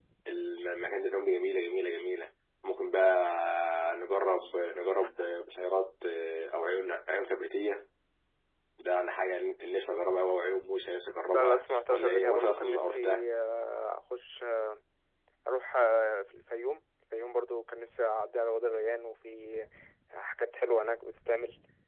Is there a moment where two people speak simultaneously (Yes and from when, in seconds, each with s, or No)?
Yes, from 11.3 s